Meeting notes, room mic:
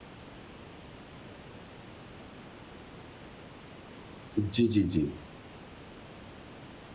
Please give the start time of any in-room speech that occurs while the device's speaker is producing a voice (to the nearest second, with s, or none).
4 s